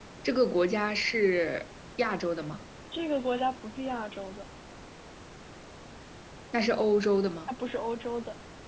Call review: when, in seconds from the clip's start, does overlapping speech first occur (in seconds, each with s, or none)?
none